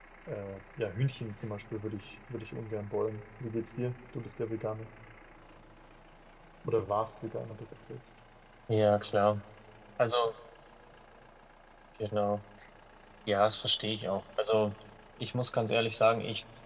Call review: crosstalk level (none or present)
none